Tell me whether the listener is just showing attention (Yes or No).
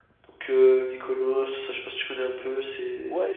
No